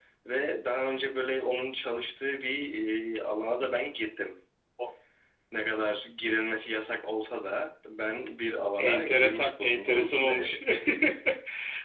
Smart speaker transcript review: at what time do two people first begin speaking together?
8.8 s

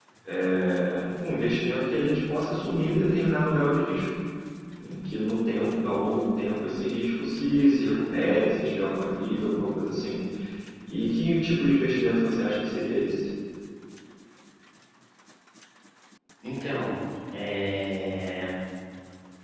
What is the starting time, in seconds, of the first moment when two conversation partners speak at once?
none

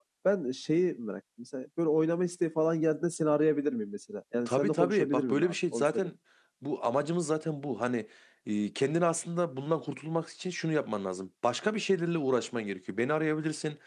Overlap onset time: 4.5 s

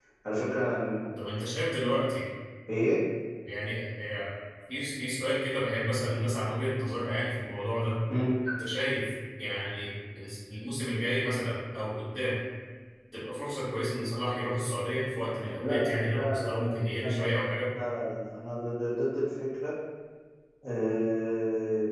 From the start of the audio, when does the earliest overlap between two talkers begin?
15.6 s

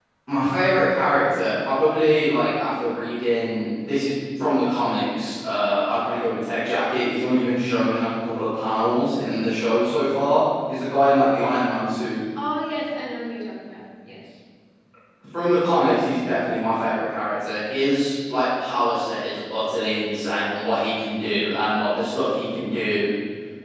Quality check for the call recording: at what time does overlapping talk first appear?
none

